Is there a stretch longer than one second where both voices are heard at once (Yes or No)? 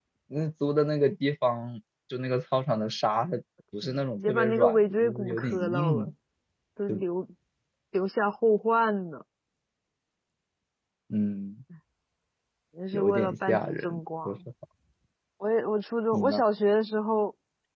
Yes